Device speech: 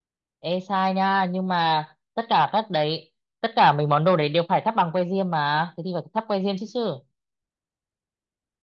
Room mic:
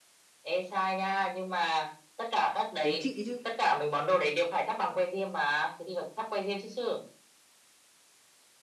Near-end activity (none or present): present